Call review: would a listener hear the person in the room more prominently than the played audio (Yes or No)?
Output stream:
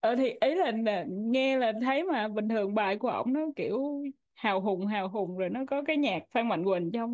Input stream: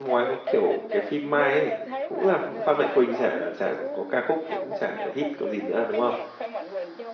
Yes